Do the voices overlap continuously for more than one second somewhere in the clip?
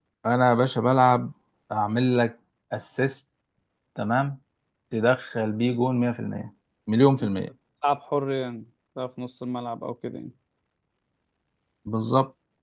No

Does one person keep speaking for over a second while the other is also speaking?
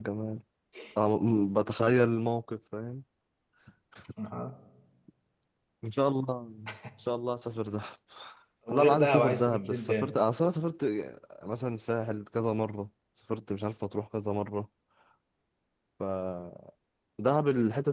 Yes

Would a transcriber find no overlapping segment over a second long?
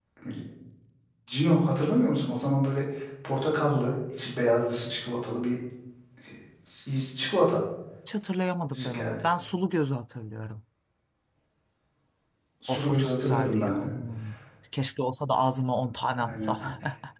No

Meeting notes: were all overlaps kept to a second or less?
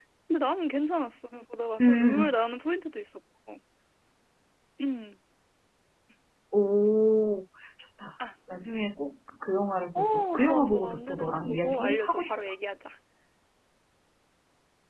No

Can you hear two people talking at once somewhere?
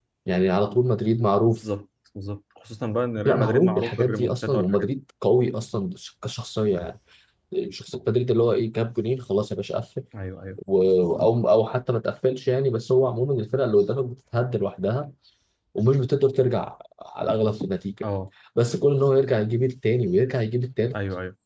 Yes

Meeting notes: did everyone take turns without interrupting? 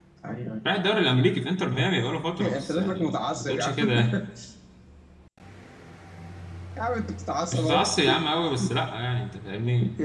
No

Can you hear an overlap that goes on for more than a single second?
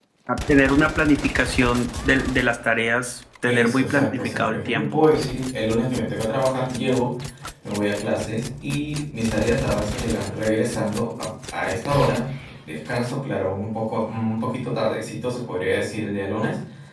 Yes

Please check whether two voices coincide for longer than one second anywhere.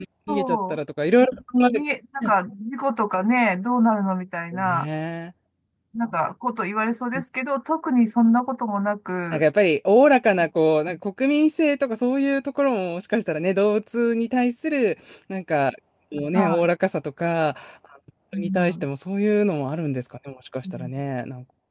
No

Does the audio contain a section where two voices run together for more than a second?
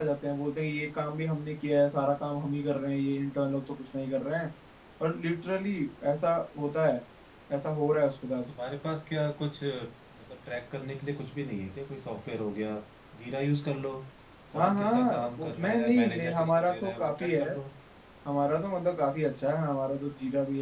Yes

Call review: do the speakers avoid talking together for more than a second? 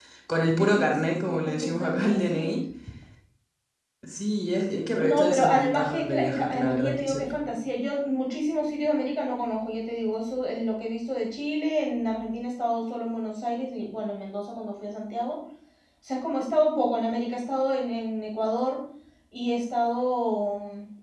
No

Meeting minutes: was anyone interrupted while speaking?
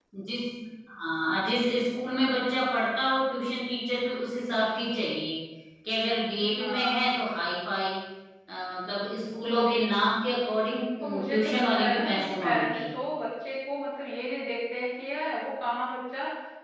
Yes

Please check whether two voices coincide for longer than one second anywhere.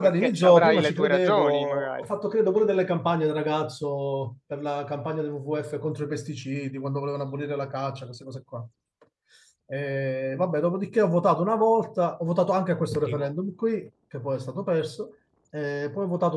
Yes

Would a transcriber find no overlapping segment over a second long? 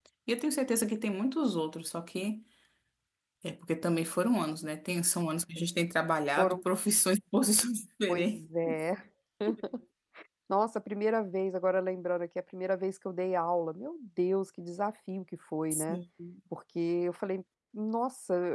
Yes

